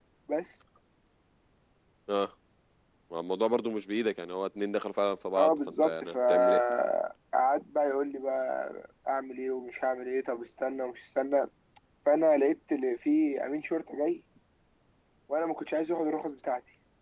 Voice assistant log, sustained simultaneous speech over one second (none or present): present